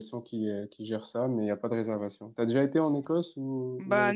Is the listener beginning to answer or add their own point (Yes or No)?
Yes